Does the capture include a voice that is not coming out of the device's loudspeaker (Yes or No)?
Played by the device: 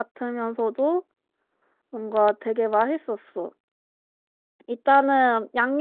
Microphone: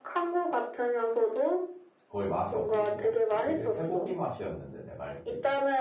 Yes